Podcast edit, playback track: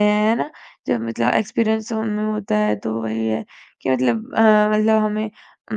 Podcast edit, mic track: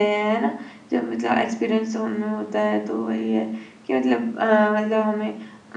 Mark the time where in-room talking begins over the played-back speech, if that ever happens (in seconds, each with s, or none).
none